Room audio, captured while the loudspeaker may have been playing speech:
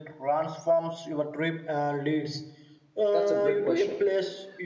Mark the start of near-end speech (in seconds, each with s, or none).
3.1 s